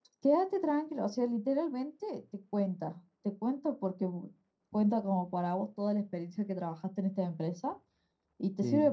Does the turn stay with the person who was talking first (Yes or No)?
Yes